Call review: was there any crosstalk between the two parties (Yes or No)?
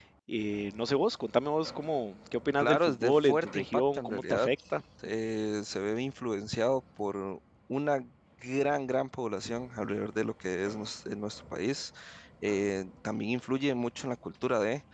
Yes